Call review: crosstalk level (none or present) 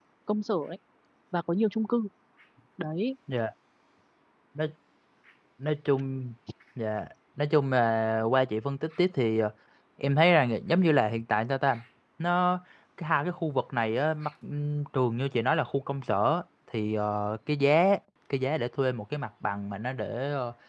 none